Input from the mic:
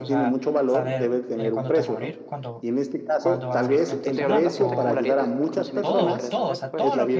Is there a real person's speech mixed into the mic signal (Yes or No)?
Yes